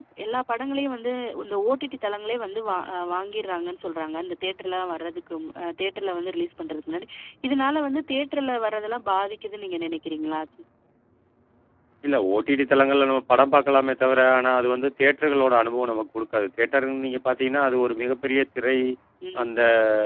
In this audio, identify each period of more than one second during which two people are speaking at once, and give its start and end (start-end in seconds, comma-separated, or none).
none